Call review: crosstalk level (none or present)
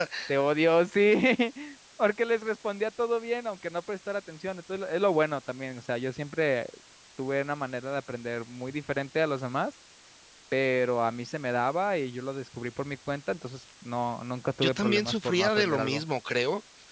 present